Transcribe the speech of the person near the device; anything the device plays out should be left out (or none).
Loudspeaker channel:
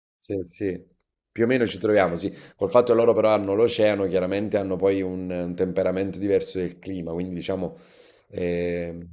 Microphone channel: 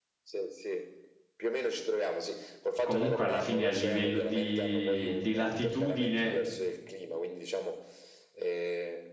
comunque alla fine a livello di, di latitudine,